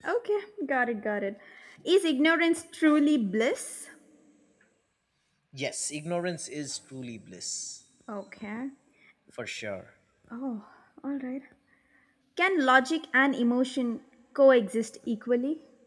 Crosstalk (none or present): none